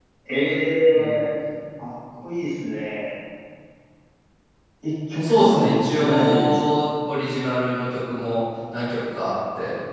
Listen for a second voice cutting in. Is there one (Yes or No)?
Yes